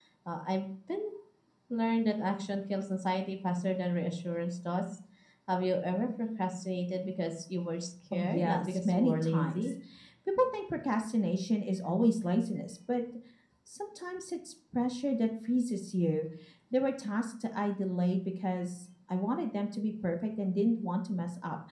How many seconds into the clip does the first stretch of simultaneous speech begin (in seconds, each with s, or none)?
8.1 s